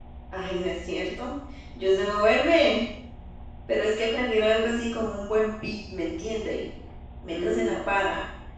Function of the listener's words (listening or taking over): taking over